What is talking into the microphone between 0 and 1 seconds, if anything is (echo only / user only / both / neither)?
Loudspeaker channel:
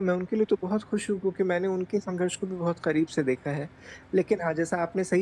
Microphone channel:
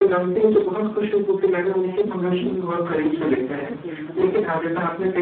echo only